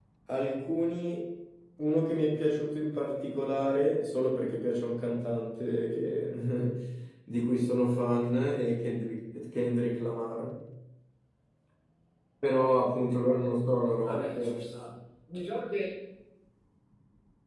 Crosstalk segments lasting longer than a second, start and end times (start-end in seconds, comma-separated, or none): none